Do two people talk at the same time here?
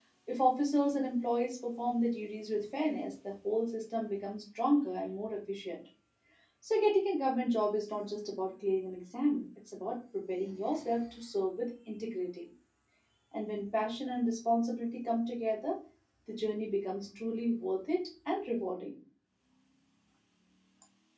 No

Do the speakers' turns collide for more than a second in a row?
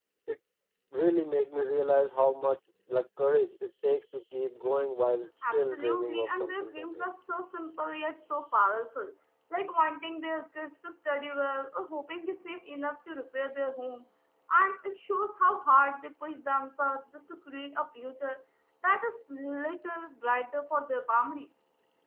Yes, from 5.4 s

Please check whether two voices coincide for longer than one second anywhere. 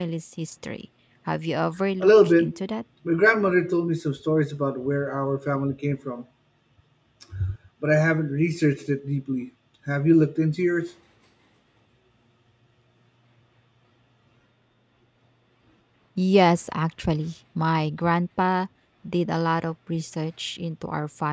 No

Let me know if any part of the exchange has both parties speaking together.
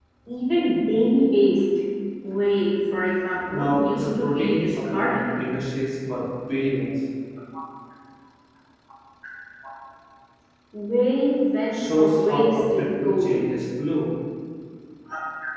Yes, from 3.5 s

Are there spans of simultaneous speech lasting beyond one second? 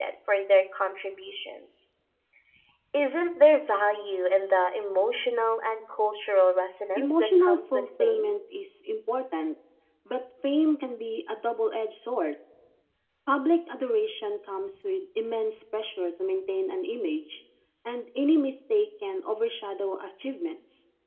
Yes, from 7.0 s

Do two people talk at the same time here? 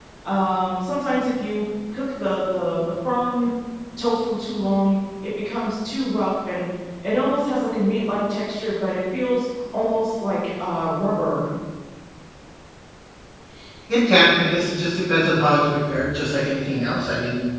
No

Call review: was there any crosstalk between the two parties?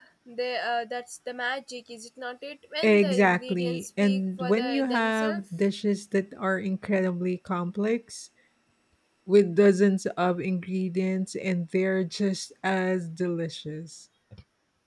Yes, from 2.8 s

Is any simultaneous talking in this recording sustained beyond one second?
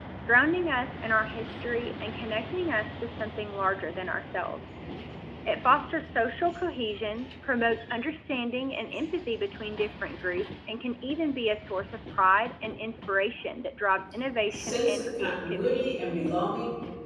Yes, from 14.5 s

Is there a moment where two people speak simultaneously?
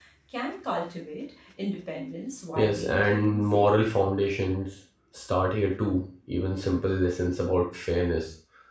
Yes, from 2.6 s

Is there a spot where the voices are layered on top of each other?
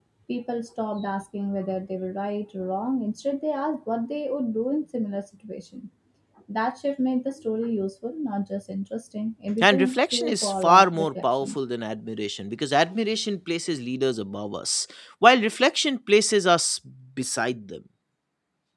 Yes, from 9.6 s

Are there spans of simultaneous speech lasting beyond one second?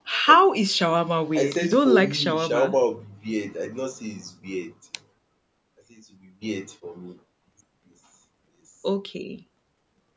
Yes, from 1.4 s

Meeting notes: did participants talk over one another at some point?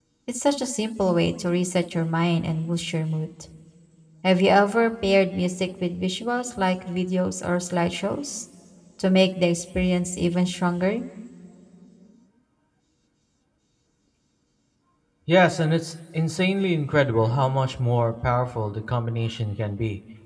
No

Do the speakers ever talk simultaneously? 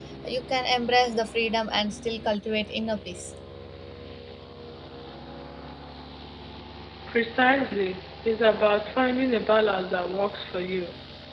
No

